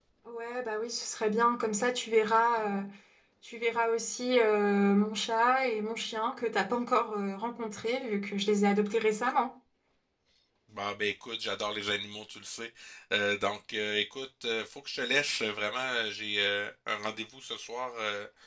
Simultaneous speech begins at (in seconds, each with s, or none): none